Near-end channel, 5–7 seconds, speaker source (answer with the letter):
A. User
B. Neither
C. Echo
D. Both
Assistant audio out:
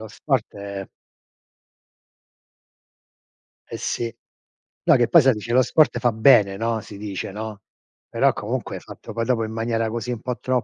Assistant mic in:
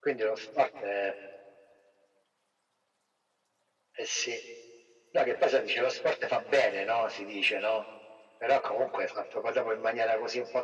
C